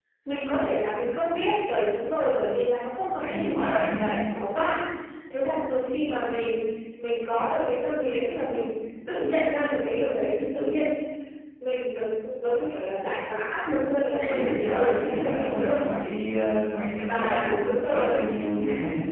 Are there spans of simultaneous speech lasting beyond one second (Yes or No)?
Yes